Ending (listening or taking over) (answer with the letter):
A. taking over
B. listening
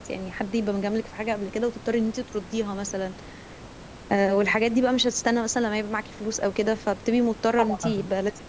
A